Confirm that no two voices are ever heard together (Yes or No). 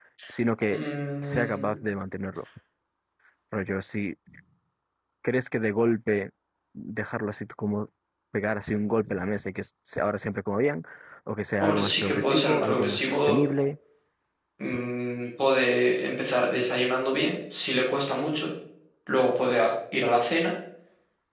No